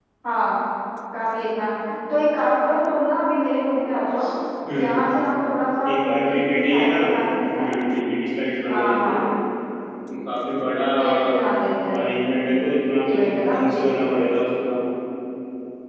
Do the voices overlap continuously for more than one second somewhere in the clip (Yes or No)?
Yes